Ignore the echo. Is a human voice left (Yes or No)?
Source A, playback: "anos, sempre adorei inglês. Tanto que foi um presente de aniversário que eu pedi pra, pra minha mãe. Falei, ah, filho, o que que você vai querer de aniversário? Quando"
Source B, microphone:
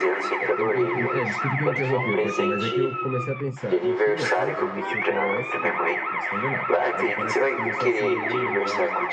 Yes